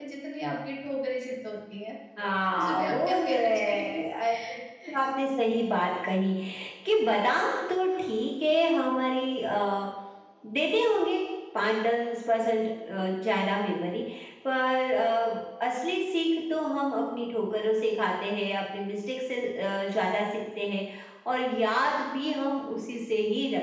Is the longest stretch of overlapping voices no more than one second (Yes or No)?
No